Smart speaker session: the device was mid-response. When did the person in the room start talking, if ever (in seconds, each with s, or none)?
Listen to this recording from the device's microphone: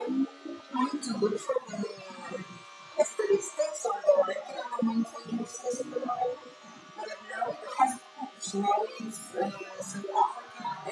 none